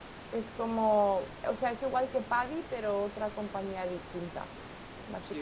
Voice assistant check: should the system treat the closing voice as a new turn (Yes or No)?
Yes